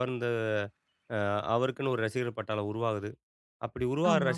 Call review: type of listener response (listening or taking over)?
listening